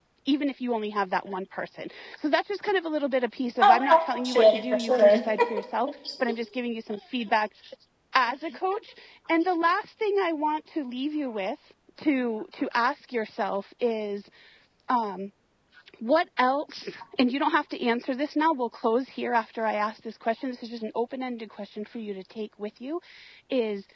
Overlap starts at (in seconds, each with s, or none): 3.6 s